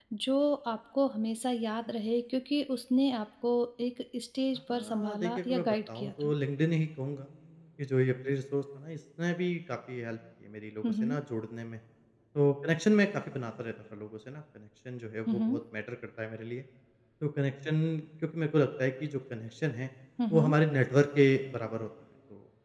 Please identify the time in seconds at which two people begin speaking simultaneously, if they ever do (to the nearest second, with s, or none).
5 s